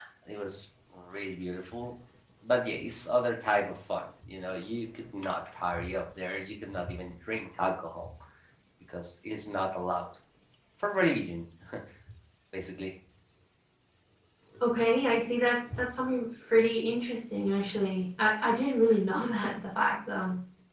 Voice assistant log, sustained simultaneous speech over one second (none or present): none